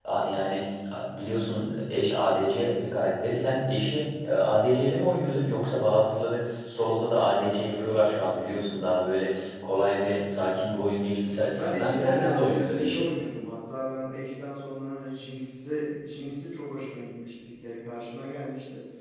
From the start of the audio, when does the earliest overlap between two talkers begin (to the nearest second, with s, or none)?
12 s